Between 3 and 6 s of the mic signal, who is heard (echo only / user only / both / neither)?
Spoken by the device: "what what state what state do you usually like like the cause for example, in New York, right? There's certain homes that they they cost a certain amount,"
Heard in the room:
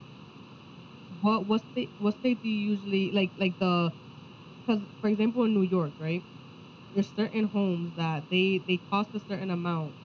echo only